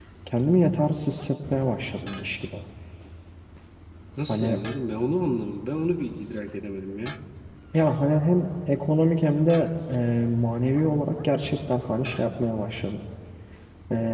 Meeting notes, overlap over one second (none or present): none